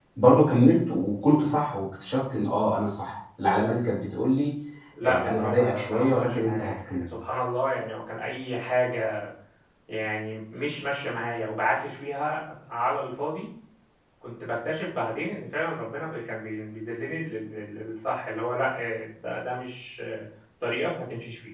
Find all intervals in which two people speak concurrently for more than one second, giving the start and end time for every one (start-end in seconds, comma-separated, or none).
5.0-7.0